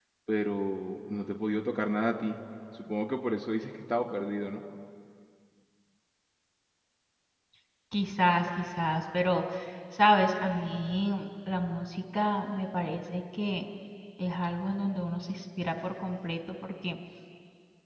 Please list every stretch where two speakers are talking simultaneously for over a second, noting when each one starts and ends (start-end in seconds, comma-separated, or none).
none